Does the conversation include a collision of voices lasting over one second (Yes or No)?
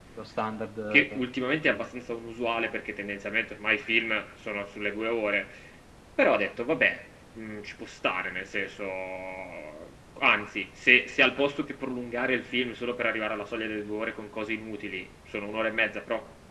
No